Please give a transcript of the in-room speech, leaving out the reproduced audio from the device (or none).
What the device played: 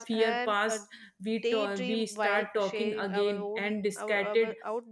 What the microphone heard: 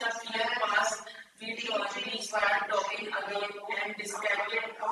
none